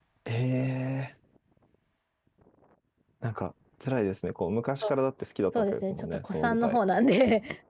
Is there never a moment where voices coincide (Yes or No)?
No